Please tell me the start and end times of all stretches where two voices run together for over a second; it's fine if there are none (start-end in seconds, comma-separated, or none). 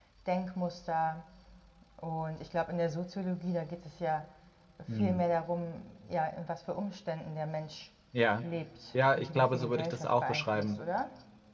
9.2-10.7